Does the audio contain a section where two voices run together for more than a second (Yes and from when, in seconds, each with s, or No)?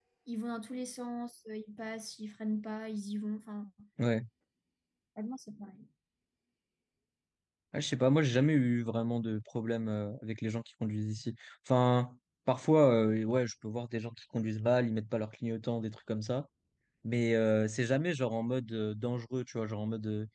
No